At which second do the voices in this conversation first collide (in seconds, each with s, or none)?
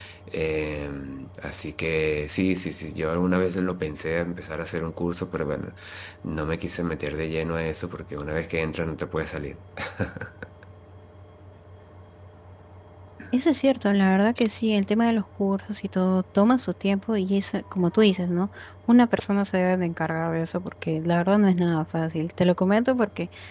none